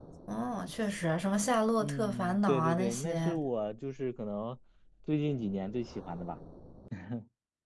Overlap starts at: 1.8 s

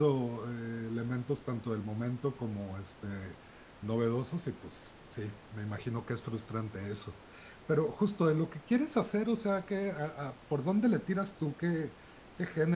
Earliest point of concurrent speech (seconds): none

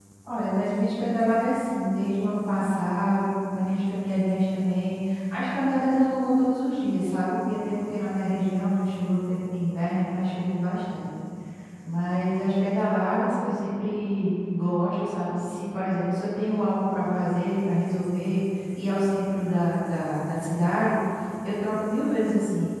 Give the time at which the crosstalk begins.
none

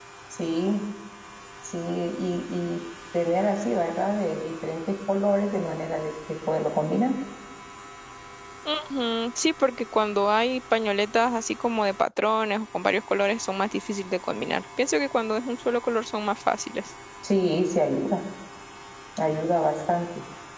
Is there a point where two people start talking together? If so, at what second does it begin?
none

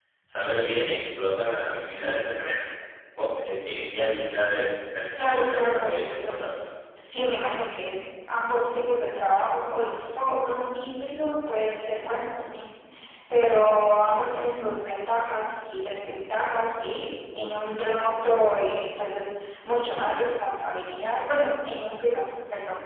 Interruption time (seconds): 5.2 s

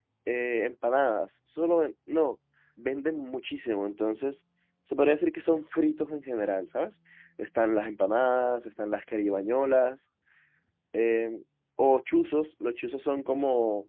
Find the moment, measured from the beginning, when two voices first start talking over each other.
none

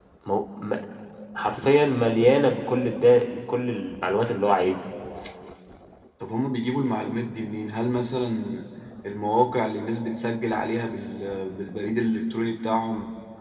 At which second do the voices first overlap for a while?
none

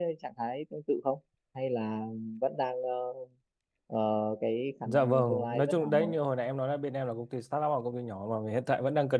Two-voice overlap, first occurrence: 4.8 s

